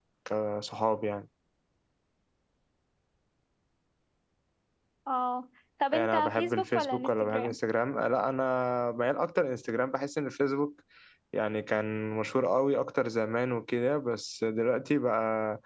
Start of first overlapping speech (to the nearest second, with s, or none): 6 s